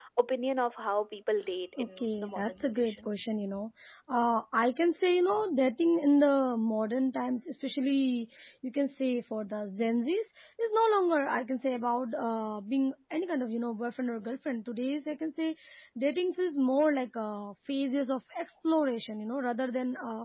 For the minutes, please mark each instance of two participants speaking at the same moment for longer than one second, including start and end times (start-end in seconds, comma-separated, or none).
1.8-3.1